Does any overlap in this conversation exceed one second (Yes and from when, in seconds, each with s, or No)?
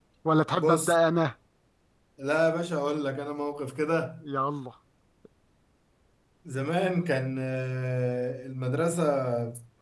No